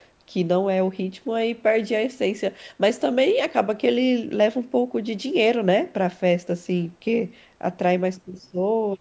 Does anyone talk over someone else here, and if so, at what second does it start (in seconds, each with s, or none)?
none